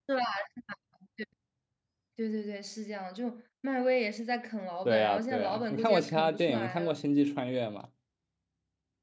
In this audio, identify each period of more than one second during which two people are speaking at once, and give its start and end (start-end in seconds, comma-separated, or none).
4.8-7.0